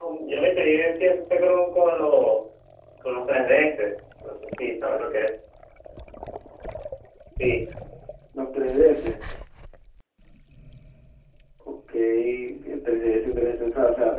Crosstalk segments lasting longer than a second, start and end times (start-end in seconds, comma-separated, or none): none